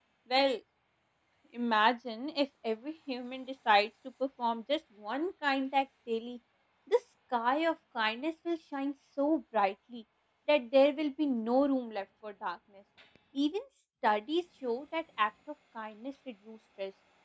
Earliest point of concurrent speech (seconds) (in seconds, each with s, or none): none